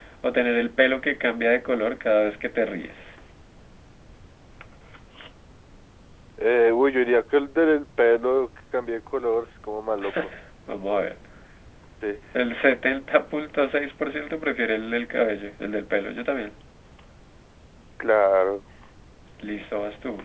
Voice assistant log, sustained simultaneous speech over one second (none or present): none